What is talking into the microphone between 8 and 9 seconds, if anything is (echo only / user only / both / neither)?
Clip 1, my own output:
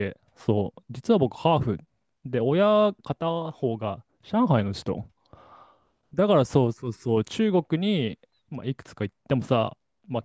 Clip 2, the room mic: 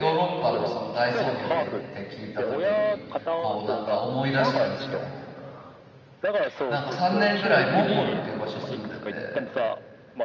both